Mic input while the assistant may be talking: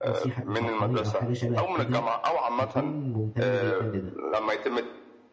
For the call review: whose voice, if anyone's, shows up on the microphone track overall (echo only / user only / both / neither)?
both